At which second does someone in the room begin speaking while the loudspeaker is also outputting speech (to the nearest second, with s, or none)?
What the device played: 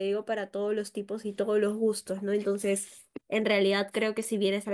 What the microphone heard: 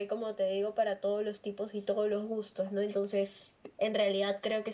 none